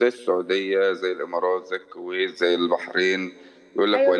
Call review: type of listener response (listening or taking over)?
taking over